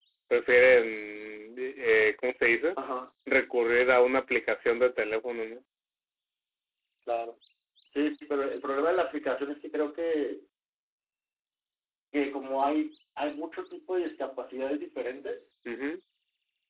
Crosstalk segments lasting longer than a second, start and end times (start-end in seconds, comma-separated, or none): none